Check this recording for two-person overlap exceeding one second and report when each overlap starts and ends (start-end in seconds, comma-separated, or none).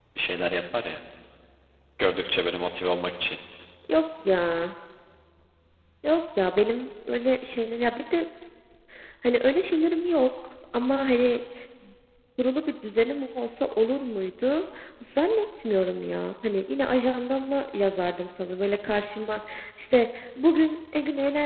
none